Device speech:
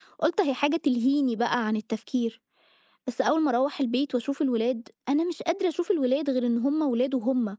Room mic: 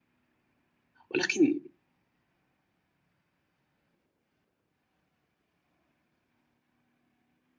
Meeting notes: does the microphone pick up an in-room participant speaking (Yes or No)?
Yes